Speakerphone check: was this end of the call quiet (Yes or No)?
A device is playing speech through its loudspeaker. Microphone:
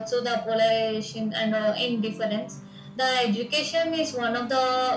Yes